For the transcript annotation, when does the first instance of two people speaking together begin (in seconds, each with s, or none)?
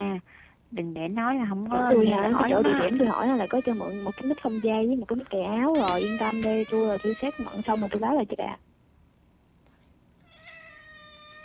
1.7 s